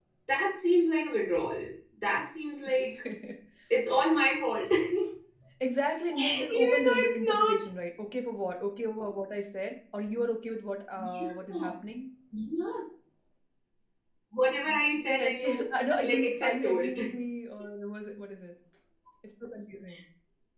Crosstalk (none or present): present